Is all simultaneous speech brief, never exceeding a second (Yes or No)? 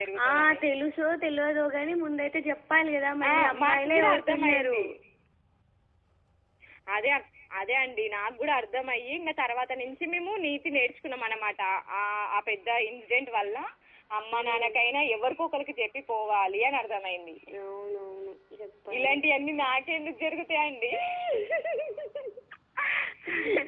No